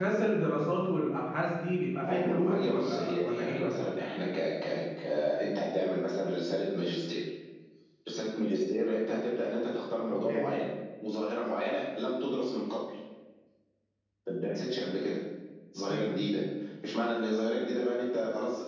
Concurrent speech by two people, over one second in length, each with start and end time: 2.1-3.9

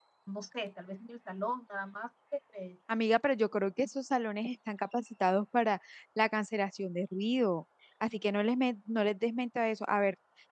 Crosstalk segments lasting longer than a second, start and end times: none

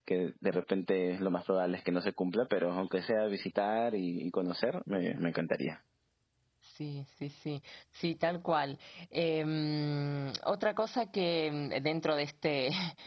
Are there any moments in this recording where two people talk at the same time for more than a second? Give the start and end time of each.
none

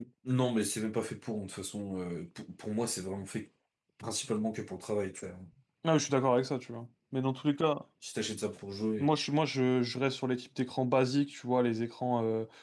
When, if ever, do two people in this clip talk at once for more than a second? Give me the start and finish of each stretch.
none

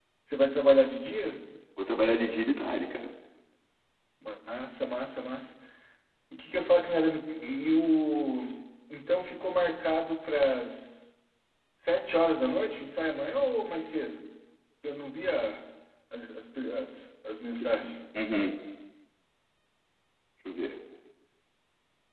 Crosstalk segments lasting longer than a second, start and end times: none

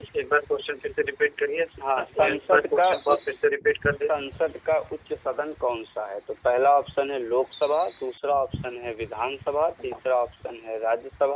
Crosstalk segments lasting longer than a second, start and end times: 1.9-3.2

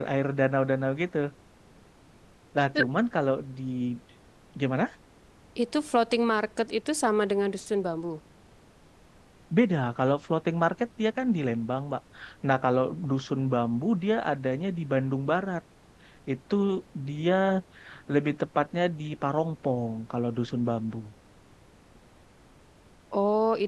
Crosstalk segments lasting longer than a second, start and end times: none

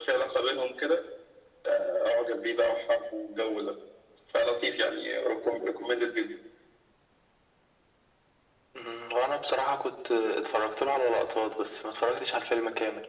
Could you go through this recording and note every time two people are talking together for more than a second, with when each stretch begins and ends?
none

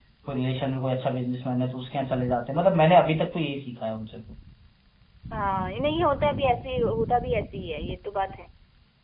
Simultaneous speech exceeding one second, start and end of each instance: none

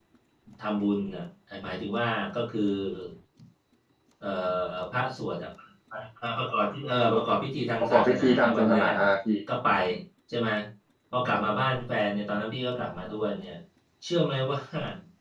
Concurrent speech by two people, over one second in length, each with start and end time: 7.8-9.1

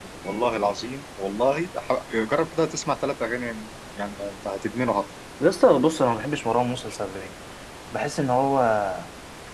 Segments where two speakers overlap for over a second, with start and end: none

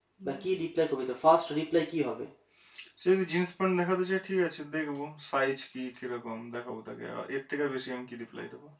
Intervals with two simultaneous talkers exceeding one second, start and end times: none

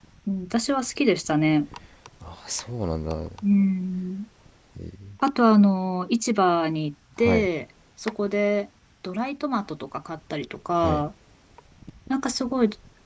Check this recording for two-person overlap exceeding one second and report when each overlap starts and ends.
none

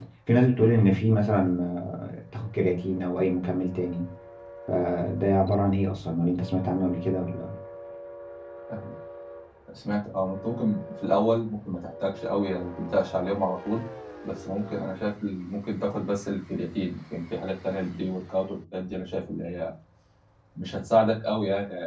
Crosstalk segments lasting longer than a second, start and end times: none

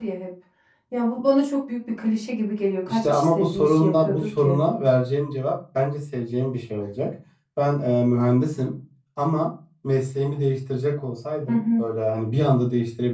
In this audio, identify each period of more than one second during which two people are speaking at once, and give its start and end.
2.9-4.6

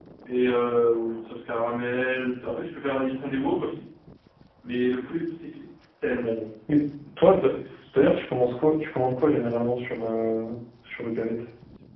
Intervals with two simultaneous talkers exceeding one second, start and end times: none

